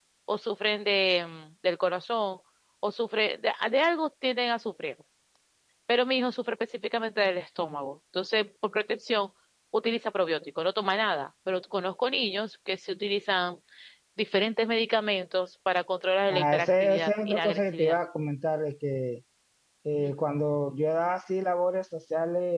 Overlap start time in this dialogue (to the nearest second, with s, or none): 16 s